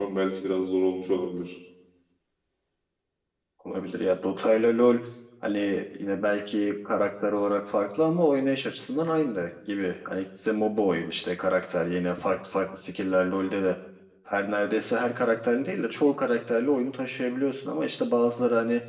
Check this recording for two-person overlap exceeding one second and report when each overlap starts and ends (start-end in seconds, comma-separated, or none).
none